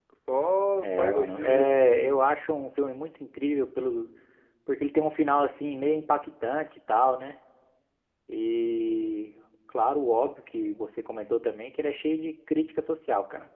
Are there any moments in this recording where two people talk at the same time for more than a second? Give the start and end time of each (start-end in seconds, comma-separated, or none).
0.8-2.2